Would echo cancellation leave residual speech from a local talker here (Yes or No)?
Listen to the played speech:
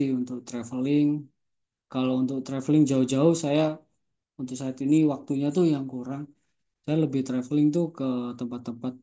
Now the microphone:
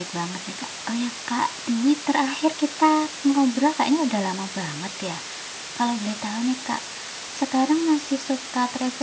Yes